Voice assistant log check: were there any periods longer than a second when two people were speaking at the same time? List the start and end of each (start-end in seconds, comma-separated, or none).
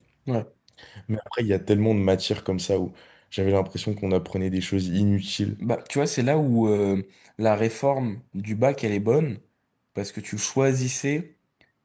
none